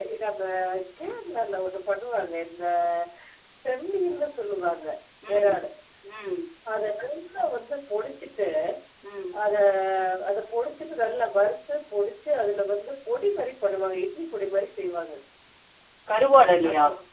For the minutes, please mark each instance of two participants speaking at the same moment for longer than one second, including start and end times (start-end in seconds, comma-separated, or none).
none